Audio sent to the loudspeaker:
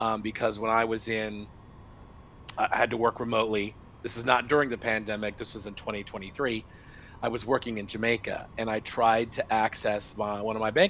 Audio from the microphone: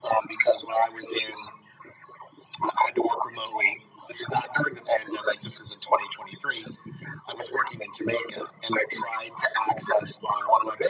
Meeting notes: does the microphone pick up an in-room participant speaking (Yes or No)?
No